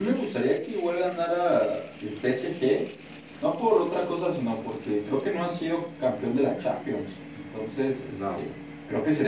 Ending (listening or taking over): listening